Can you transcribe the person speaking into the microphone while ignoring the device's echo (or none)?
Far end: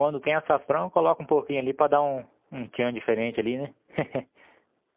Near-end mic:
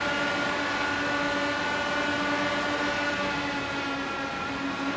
none